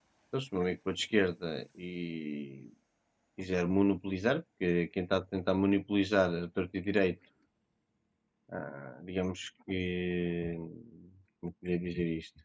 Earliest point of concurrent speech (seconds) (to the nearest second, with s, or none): none